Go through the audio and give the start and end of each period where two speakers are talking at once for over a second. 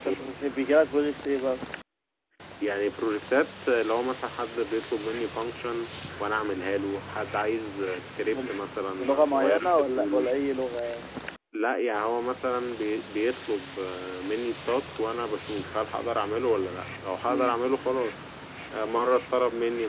9.0-10.3

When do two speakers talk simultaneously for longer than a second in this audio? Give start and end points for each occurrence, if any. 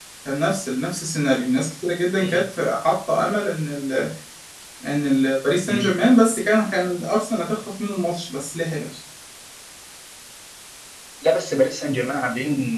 none

